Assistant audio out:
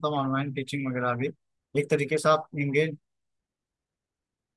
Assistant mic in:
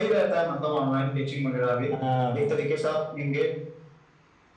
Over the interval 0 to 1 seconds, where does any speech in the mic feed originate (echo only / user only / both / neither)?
echo only